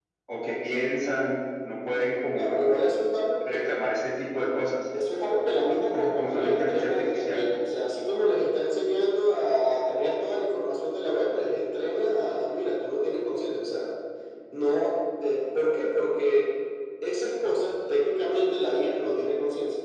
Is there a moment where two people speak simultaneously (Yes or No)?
Yes